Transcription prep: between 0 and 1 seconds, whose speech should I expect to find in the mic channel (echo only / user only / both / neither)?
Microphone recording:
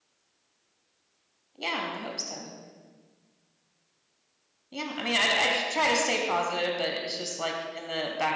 neither